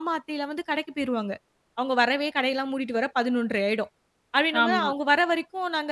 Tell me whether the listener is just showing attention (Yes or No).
Yes